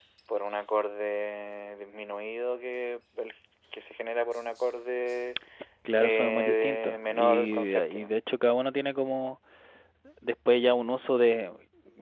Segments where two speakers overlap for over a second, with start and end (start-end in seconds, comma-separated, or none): 6.0-8.1